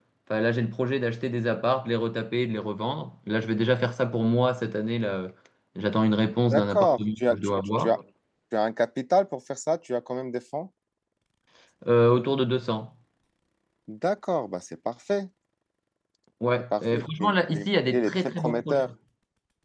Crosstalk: present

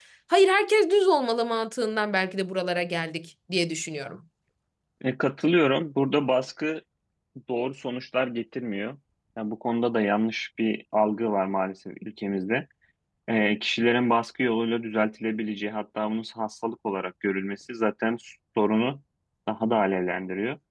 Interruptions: none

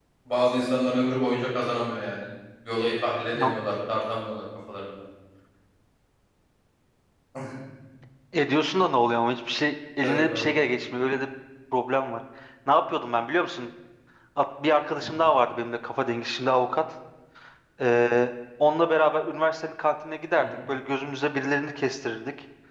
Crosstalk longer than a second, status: none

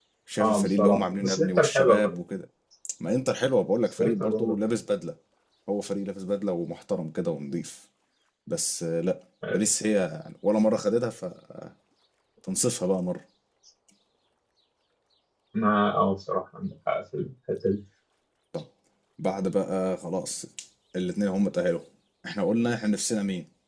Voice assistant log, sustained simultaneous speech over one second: present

